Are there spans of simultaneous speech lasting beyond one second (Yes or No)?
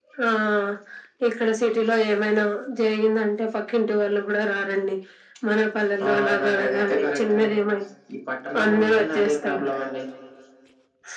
Yes